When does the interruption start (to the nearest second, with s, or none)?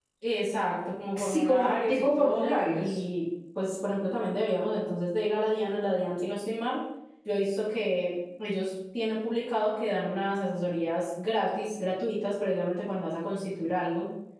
1 s